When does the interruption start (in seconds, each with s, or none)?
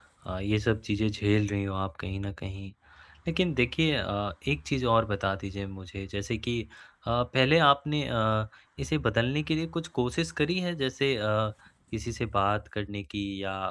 none